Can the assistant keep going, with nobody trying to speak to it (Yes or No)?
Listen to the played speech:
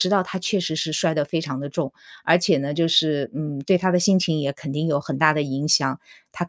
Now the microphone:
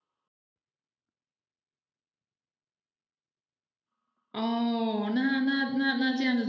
No